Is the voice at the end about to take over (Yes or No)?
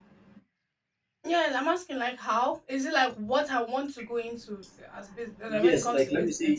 Yes